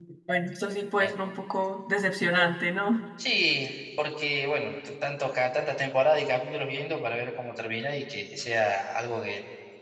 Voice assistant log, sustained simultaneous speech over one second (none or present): none